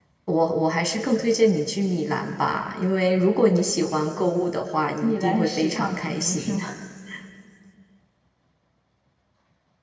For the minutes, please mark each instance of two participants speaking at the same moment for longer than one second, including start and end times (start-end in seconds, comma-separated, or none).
5.0-6.4